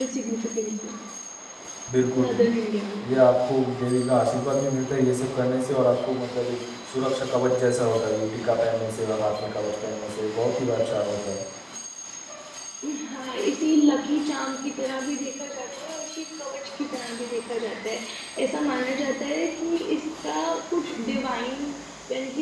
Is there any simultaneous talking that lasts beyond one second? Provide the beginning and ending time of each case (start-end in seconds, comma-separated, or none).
none